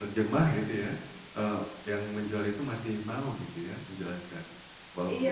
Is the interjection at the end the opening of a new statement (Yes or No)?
Yes